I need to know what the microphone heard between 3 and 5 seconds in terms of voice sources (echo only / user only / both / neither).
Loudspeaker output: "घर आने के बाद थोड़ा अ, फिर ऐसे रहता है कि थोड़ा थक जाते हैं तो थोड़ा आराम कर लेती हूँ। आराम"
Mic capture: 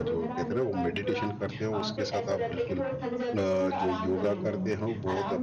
both